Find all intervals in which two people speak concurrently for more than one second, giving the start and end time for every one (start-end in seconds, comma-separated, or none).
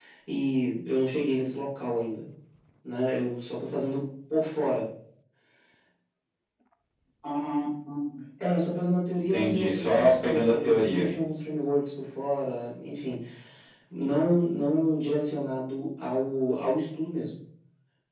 9.3-11.1